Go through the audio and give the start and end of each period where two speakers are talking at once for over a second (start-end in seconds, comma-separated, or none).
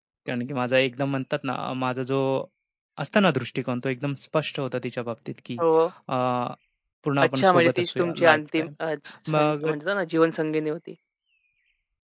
7.2-8.7